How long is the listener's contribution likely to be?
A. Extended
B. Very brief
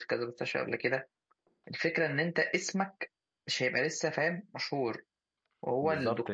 A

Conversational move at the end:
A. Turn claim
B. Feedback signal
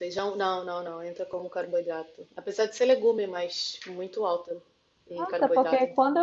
A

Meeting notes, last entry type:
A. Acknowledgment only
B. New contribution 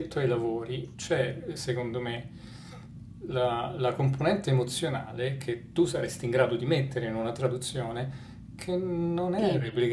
A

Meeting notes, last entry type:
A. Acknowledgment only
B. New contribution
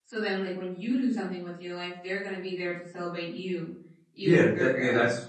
B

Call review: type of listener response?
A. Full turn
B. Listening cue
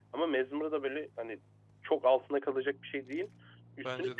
B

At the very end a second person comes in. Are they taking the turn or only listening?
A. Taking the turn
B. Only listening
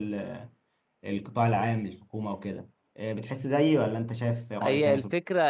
A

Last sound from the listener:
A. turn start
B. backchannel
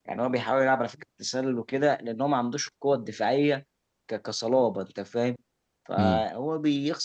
B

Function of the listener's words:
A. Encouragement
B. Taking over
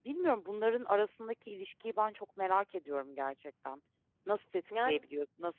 A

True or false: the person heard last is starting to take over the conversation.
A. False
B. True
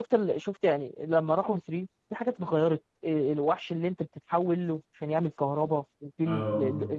A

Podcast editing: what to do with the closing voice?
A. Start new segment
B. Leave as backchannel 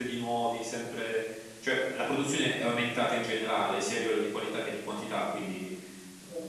B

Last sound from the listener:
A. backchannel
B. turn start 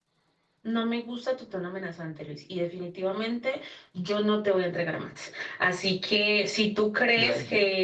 A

